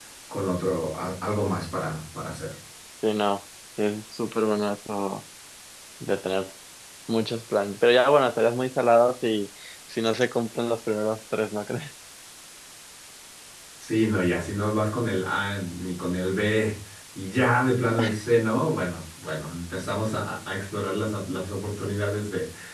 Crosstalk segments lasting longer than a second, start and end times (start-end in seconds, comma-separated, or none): none